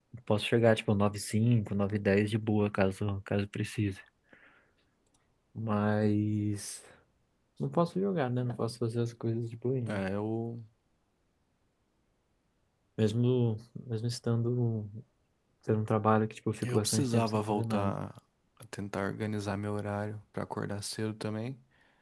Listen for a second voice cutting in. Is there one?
Yes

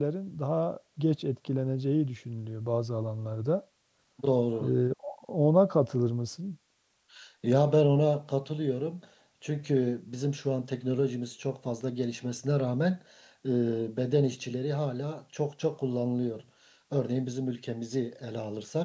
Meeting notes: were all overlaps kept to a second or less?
Yes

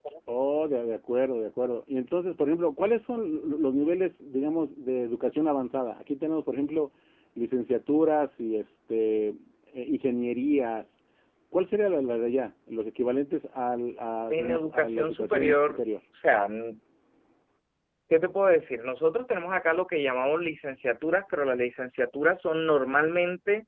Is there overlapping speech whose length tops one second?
Yes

